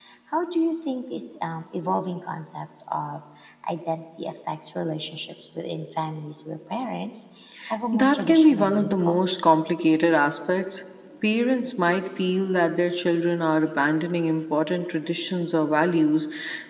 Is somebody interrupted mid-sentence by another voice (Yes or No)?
Yes